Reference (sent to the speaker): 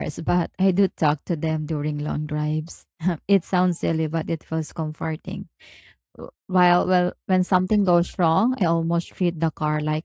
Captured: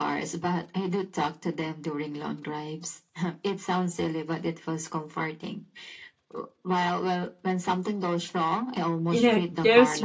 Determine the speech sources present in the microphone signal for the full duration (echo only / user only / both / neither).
both